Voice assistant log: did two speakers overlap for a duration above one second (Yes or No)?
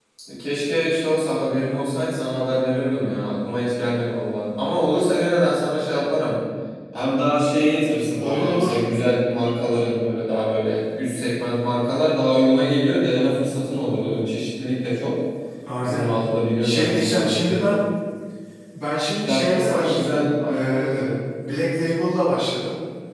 Yes